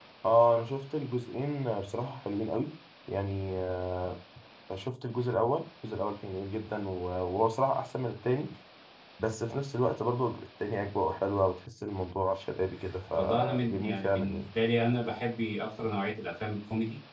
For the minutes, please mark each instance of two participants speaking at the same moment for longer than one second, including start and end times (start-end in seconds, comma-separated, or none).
13.1-14.4